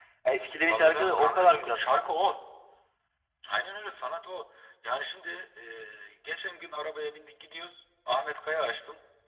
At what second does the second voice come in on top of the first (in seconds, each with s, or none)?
0.7 s